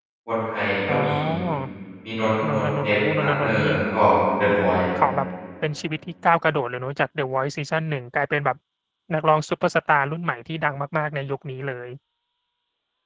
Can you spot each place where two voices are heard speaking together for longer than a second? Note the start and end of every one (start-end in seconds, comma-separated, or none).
2.5-3.7